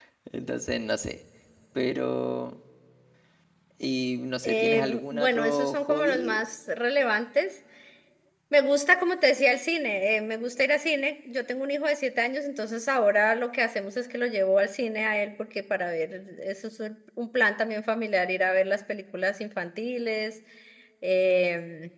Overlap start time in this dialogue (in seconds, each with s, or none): 4.4 s